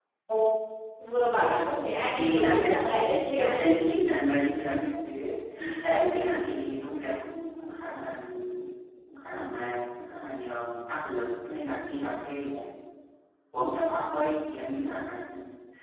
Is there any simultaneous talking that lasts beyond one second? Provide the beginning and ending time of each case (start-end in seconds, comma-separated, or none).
2.1-3.5